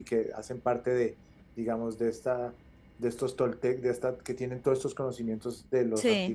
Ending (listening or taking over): listening